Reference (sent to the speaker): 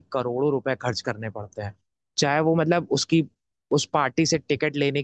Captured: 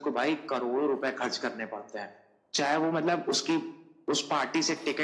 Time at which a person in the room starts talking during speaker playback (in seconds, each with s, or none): none